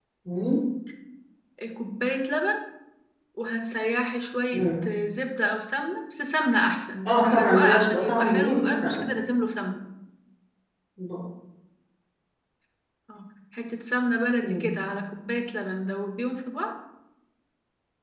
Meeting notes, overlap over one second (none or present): present